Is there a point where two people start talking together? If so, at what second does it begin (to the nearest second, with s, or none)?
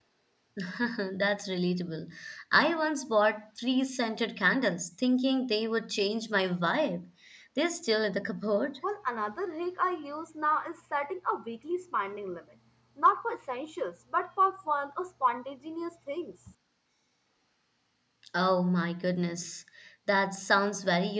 none